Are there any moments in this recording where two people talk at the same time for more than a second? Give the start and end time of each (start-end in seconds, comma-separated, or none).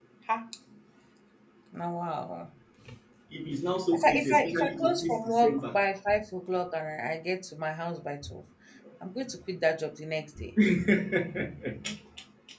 3.9-5.6